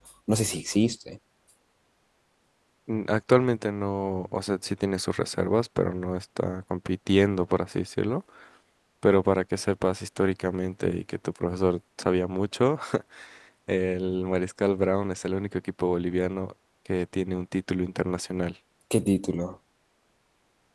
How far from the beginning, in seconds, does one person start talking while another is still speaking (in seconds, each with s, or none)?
none